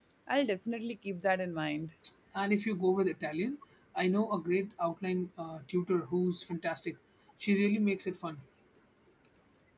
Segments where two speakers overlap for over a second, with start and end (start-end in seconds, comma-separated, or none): none